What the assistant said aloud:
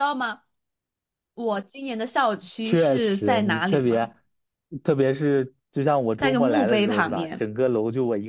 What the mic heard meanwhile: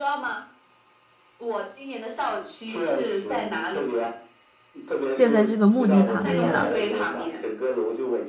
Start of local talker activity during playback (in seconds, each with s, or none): 5.1 s